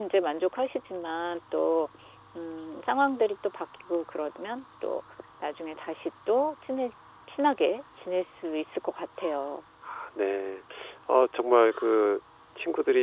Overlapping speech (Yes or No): No